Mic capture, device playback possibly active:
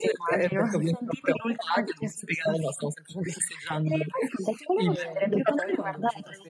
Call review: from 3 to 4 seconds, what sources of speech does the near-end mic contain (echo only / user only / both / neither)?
echo only